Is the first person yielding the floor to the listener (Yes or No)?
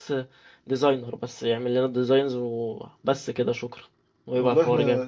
Yes